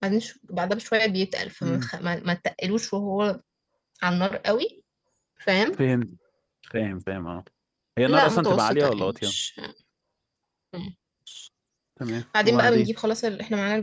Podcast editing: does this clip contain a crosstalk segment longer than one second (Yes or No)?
Yes